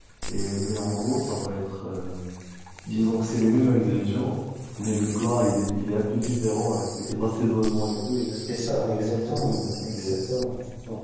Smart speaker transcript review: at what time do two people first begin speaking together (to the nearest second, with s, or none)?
8 s